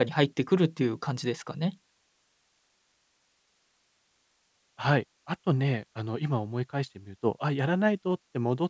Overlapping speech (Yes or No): No